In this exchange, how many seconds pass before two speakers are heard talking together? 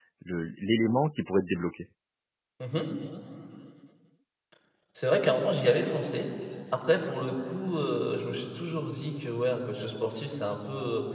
none

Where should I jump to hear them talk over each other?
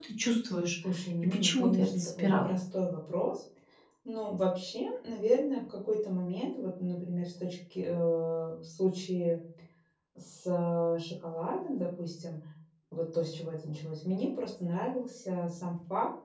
1.2 s

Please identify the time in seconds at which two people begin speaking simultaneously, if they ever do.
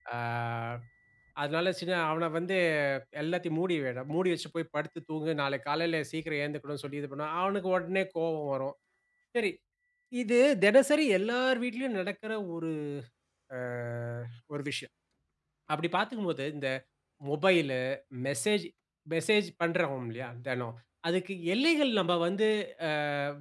none

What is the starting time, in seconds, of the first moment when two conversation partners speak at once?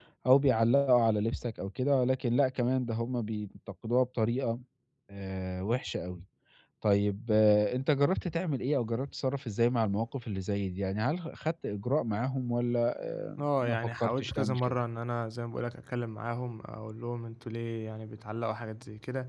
13.4 s

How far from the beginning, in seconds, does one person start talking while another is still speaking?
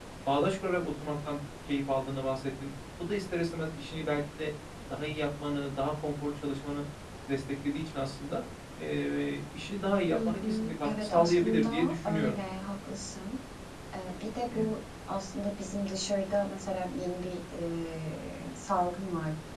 10.1 s

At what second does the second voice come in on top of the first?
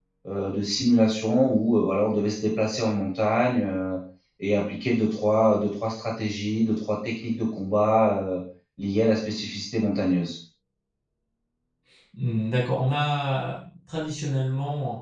none

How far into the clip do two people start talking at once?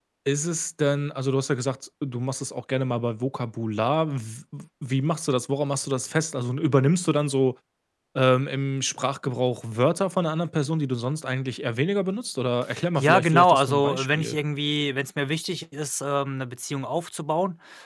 13.0 s

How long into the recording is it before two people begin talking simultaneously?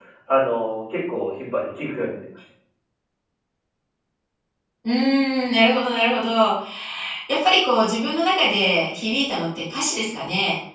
none

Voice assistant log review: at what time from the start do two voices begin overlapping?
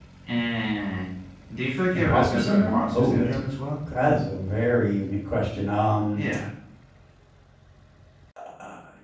1.9 s

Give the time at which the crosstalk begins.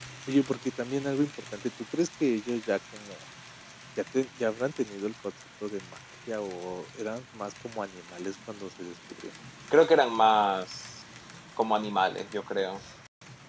none

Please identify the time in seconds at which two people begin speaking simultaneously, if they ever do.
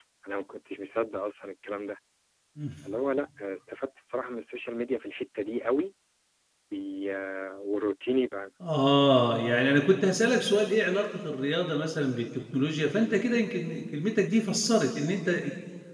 none

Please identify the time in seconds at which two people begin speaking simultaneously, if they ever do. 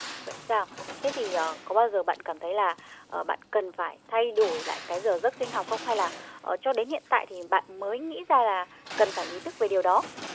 none

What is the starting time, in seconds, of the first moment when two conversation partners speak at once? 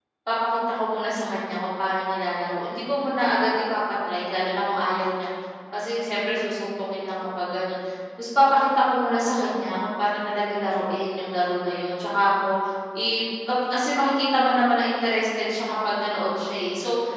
none

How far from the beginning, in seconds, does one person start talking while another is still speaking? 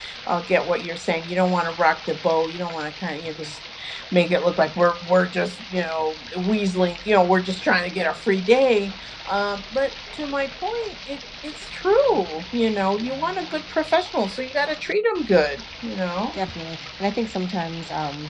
none

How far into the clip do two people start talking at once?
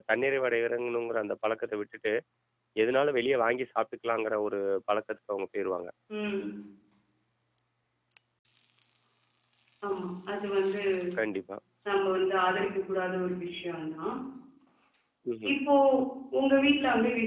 none

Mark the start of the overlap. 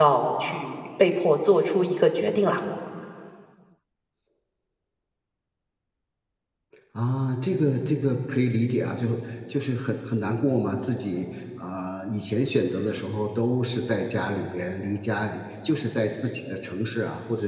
none

